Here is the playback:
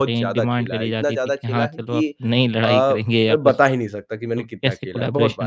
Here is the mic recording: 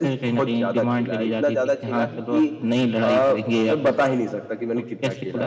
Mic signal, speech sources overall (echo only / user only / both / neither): echo only